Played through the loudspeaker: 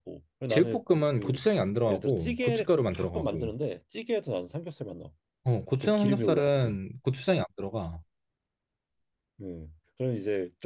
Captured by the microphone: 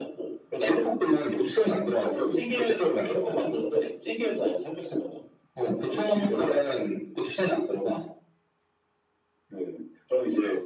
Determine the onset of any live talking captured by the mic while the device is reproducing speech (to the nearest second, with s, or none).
none